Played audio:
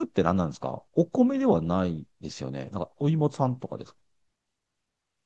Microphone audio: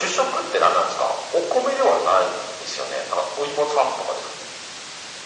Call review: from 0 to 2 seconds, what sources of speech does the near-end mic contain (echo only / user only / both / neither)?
echo only